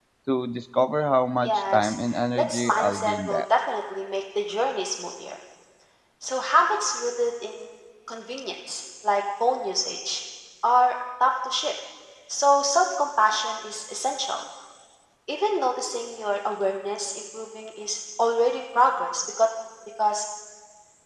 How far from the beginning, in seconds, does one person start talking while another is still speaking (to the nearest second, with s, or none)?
1 s